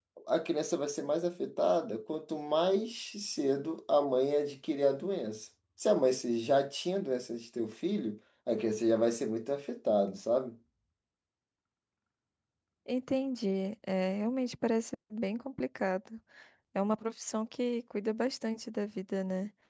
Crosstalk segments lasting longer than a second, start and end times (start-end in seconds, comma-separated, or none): none